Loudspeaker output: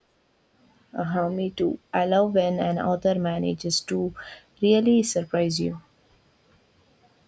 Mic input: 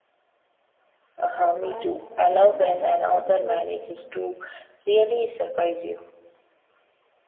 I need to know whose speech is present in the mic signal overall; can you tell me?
both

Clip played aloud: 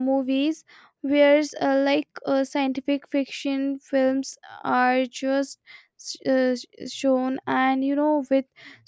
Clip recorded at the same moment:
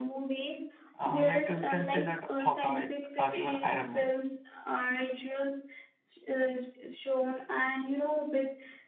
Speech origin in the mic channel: both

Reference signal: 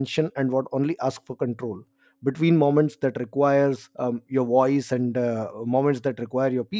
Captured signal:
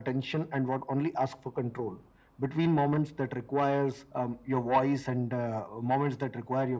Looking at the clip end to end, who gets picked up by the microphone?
echo only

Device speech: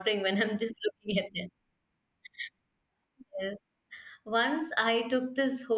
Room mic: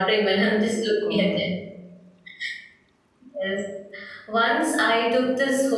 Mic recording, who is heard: both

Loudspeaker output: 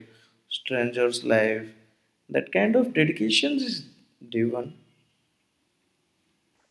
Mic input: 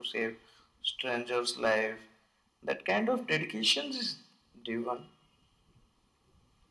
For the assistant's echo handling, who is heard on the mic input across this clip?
echo only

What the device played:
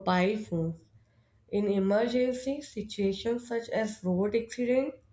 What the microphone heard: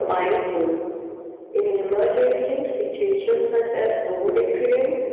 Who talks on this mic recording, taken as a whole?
echo only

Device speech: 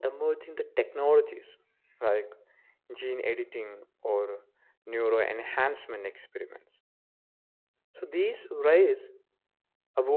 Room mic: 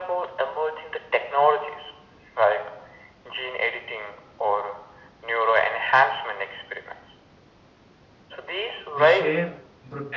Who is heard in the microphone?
both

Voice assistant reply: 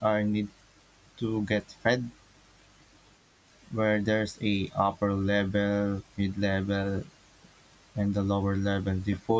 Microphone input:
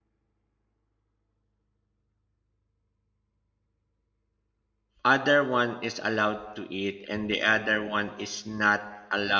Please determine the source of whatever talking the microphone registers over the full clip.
user only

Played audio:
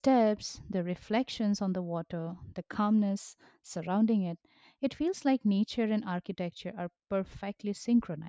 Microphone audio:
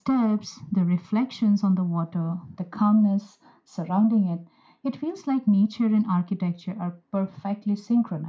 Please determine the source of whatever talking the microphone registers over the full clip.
echo only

